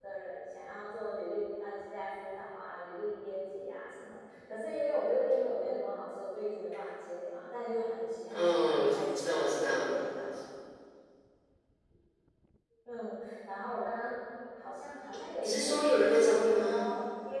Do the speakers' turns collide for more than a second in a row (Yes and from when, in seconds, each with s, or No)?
Yes, from 8.3 s